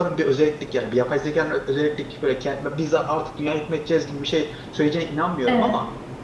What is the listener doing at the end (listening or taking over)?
listening